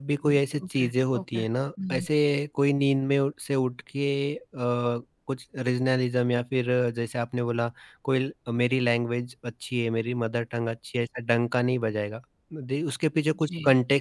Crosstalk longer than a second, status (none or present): present